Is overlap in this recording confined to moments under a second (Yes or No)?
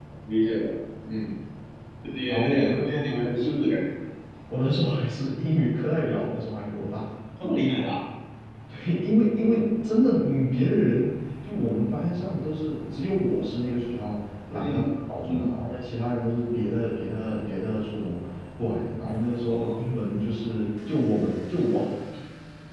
No